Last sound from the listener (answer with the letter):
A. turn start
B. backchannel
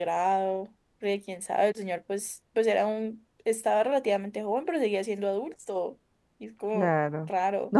A